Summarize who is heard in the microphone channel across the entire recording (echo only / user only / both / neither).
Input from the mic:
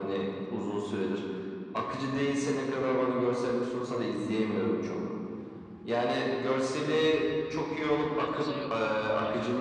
both